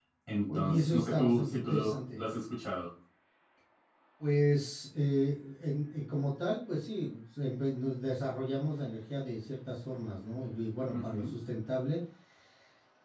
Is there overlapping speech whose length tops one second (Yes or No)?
Yes